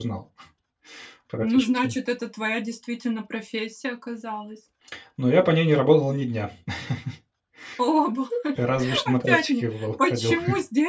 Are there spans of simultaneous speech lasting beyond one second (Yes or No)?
Yes